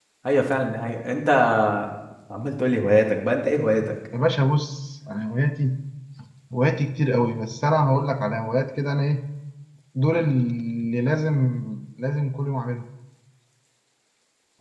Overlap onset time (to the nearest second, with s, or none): none